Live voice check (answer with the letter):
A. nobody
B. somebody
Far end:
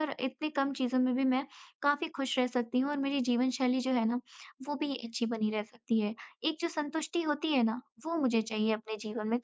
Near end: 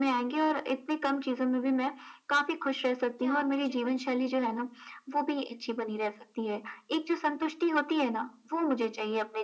B